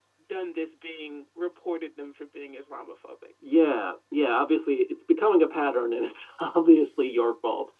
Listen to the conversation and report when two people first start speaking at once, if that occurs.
none

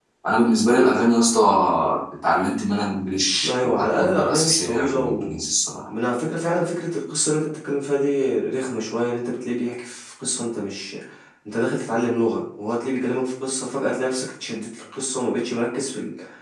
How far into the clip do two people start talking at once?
3.4 s

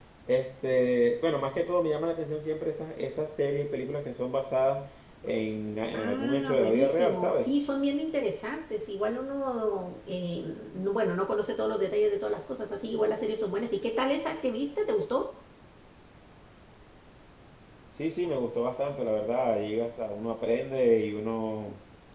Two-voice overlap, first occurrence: 5.9 s

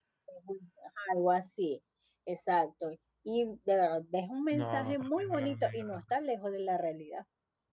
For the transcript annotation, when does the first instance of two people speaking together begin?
4.5 s

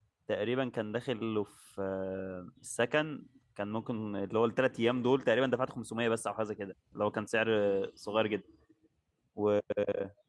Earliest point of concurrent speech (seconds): none

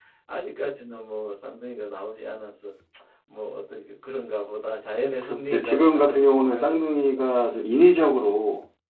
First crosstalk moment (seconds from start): 5.2 s

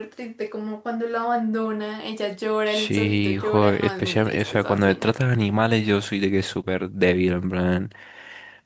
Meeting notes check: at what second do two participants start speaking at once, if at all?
2.7 s

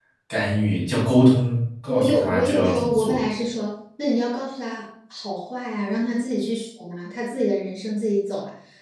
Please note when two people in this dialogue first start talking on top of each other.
1.9 s

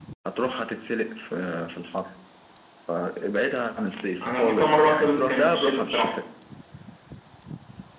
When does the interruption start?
4.2 s

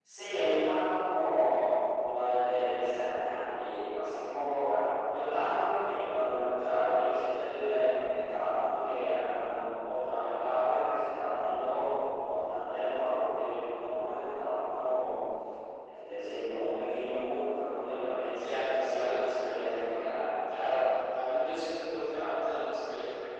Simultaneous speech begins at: 18.4 s

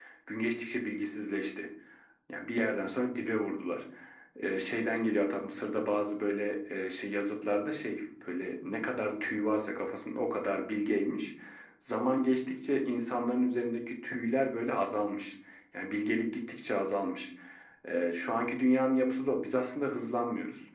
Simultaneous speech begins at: none

